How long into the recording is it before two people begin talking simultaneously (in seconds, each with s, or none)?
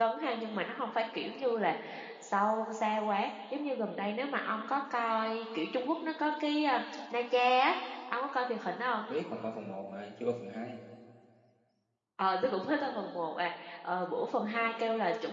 none